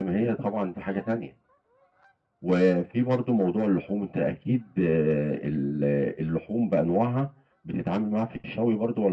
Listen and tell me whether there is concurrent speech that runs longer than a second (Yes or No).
No